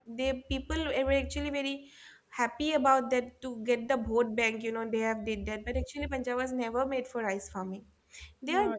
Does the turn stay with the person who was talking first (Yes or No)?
No